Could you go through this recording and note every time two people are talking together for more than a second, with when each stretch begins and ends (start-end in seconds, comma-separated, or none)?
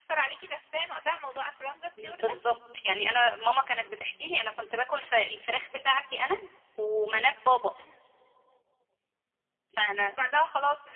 none